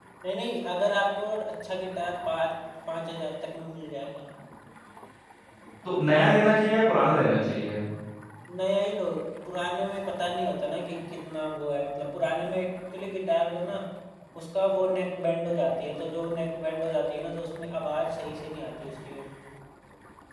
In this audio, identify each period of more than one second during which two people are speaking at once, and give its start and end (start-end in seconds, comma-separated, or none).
none